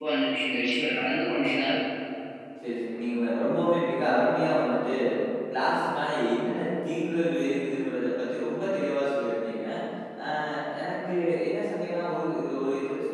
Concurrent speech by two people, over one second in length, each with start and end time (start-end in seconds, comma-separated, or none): none